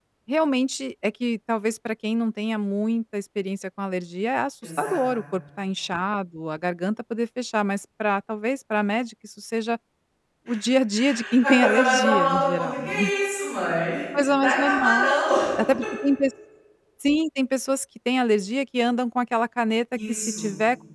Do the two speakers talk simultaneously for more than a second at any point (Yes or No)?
Yes